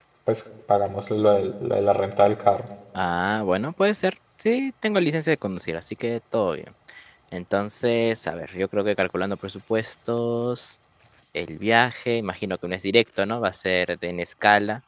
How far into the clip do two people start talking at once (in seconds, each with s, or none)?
none